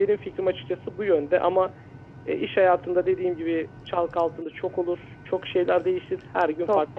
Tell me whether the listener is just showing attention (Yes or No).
No